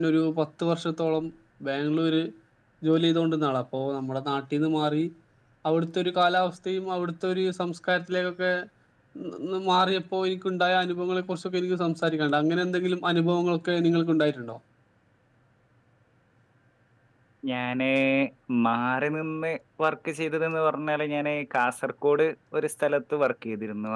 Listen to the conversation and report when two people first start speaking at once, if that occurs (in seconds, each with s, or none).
none